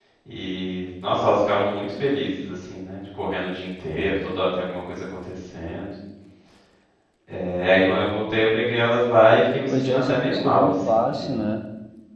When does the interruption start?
9.7 s

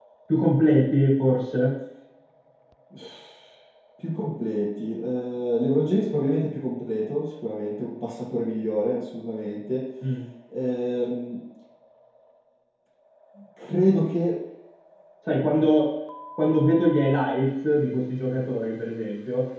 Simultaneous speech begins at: none

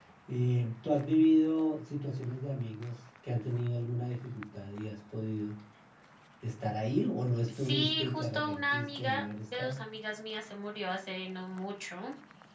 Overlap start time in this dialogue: 7.5 s

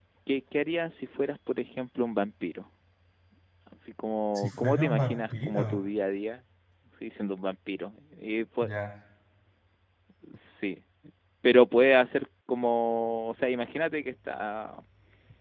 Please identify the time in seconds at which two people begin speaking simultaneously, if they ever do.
4.4 s

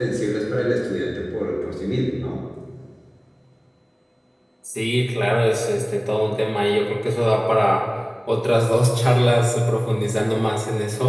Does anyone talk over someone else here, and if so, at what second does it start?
none

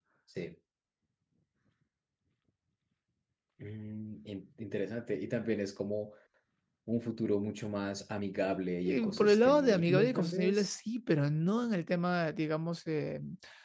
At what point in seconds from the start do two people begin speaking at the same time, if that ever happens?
8.8 s

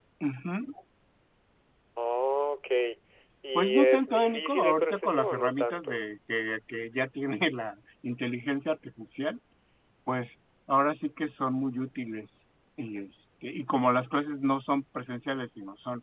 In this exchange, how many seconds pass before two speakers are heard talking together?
3.6 s

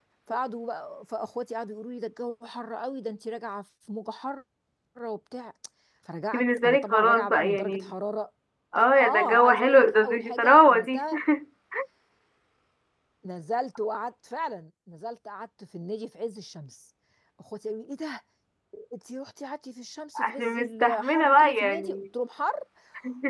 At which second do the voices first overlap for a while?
6.3 s

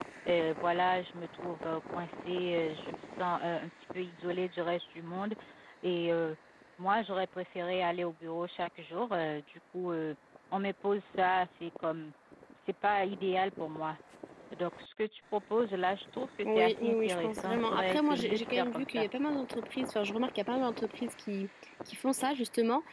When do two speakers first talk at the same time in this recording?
16.4 s

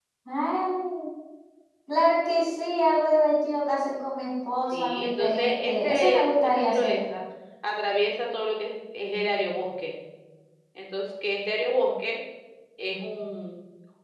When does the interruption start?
4.7 s

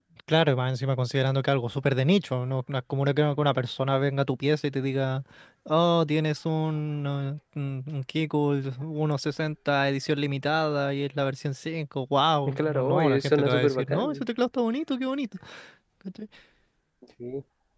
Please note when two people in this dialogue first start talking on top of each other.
12.5 s

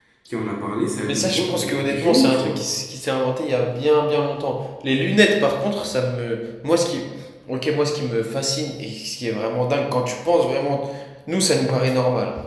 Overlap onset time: 1.0 s

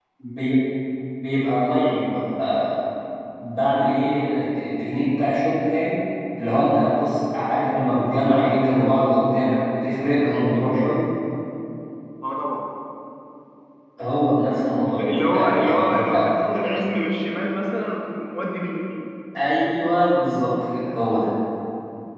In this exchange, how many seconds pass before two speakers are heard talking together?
14.8 s

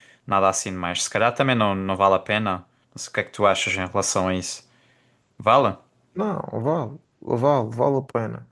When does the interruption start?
none

